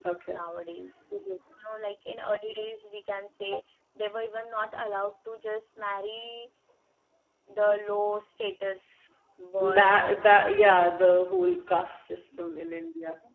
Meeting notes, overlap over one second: present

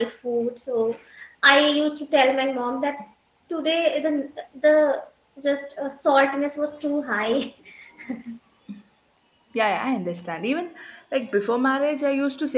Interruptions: none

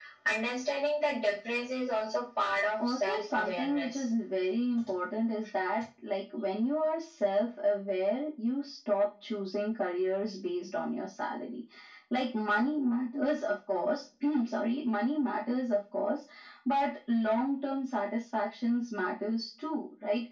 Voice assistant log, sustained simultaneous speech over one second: present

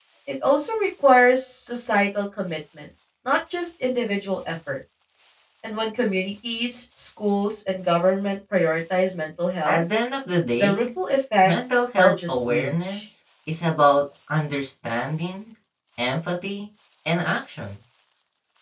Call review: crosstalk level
present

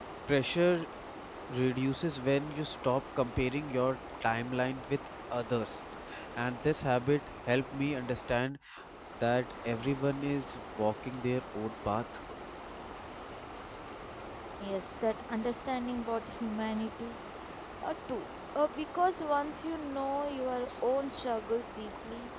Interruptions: none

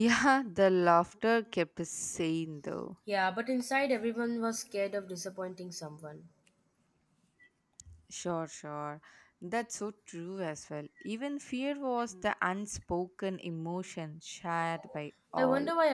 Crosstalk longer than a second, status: none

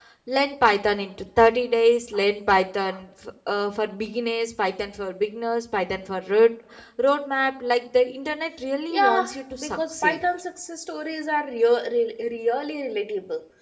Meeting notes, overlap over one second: present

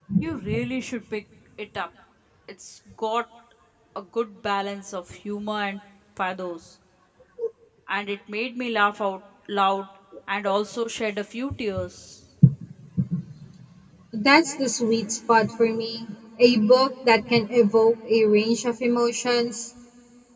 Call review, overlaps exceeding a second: none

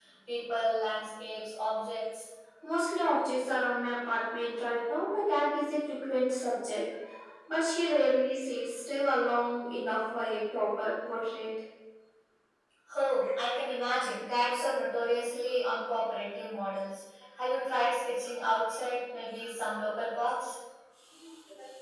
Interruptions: none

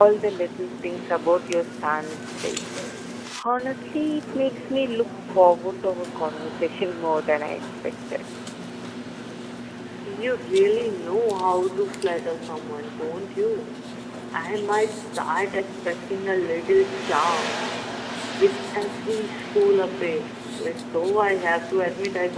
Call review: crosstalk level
none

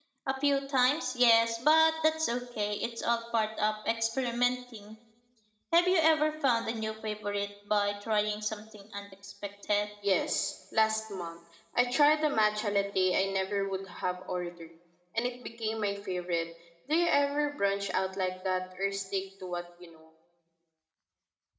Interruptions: none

